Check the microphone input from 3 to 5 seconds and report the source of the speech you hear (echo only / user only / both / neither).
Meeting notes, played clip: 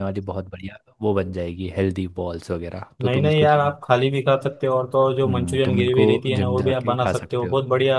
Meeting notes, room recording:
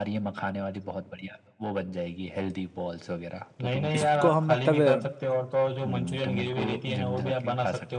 both